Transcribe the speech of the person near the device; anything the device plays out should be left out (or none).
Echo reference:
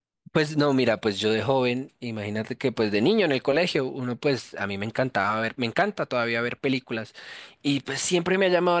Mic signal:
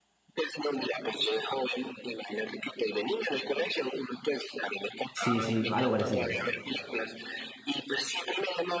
Sí, sí, algo parecido.